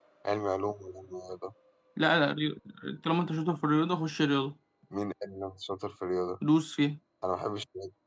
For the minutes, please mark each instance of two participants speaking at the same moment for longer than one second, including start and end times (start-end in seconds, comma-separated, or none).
none